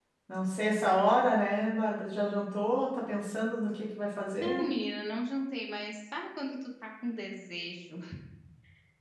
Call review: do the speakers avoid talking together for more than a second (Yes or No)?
Yes